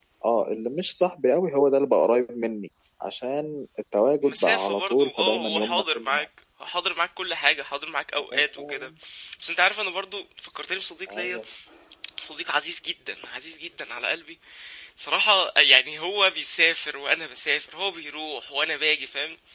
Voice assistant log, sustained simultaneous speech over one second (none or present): present